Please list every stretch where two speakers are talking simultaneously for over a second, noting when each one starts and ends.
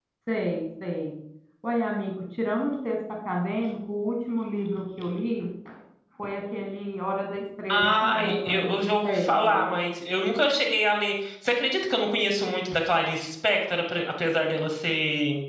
7.7-9.6

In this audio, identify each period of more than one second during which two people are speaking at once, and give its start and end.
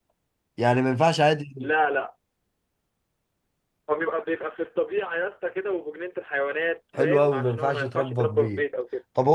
7.0-8.6

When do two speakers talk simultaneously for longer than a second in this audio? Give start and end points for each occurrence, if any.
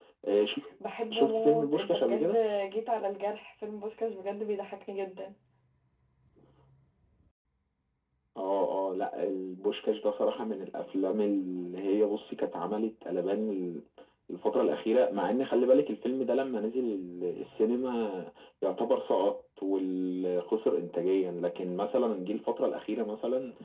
1.1-2.4

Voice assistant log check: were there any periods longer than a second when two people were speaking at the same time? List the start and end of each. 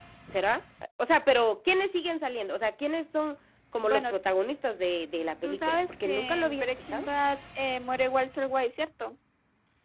5.4-7.1

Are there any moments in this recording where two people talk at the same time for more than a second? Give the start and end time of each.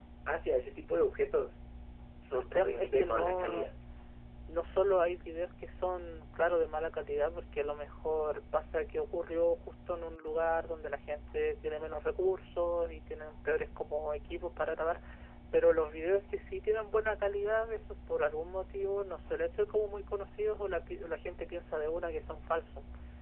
2.3-3.7

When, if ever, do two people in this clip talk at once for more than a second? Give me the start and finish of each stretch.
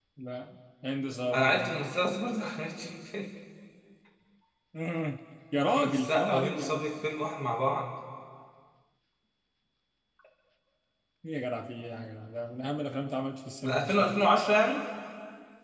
5.7-6.9

